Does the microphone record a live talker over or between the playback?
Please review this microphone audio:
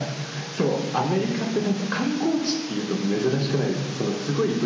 No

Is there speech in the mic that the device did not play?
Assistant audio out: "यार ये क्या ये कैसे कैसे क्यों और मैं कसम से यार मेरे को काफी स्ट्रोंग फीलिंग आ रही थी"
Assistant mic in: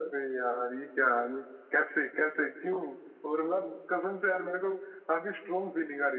No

